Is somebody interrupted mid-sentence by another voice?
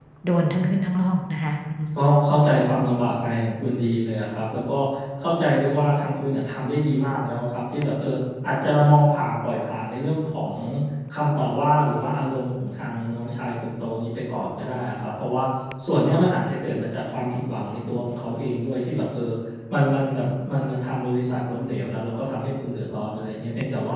No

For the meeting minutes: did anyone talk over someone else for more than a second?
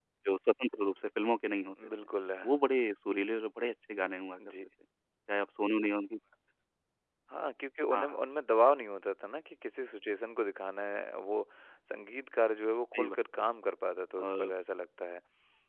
No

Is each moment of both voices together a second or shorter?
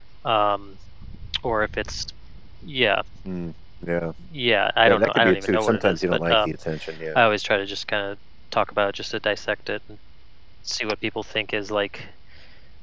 No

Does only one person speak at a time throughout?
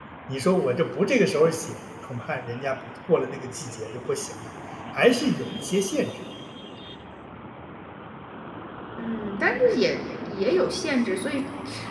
Yes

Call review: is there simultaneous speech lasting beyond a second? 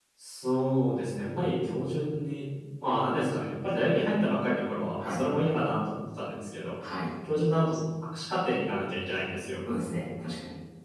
No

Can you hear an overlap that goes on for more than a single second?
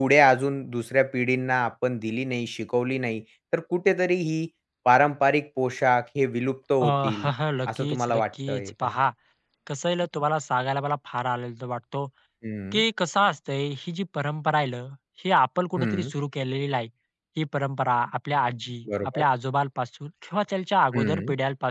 Yes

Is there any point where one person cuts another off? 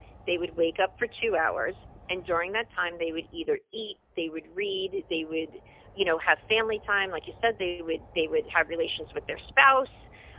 No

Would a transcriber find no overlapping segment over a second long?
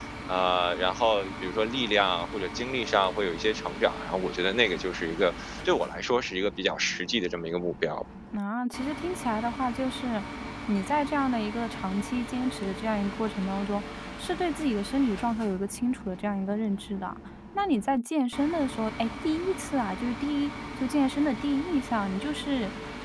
Yes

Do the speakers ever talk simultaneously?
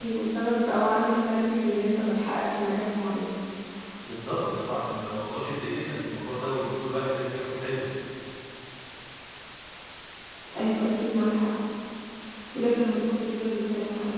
No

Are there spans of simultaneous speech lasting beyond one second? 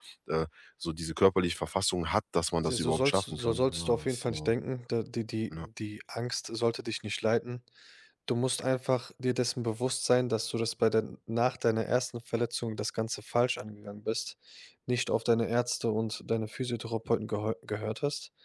Yes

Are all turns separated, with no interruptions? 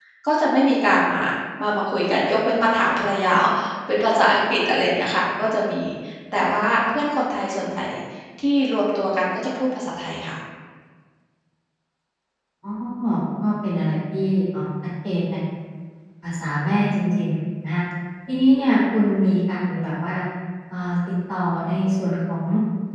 Yes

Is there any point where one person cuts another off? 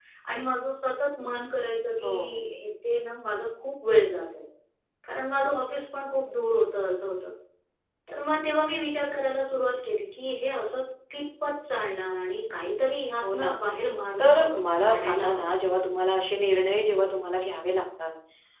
Yes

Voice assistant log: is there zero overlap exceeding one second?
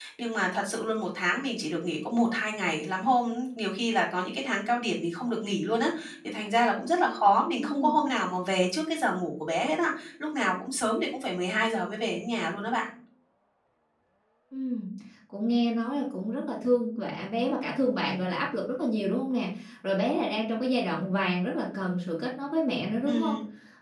Yes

